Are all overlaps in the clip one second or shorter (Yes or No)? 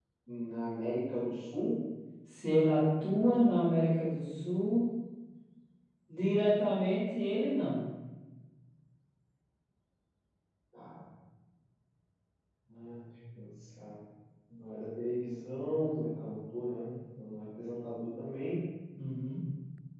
Yes